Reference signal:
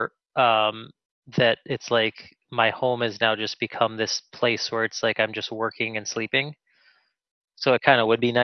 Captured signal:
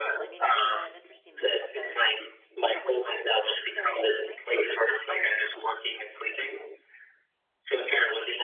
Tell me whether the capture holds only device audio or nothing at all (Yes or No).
No